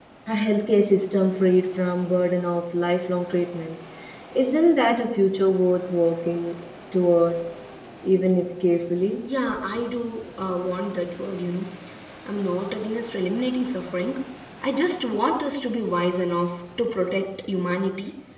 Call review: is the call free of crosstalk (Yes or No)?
Yes